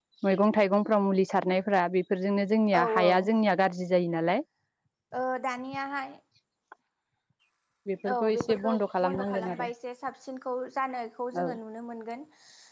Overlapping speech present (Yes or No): Yes